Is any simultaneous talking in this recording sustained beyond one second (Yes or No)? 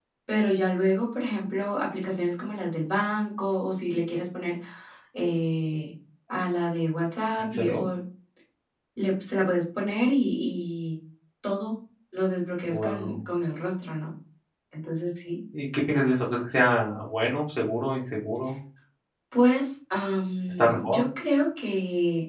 No